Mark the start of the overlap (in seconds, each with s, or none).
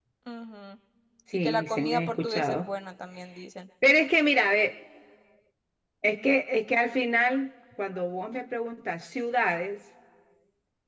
1.3 s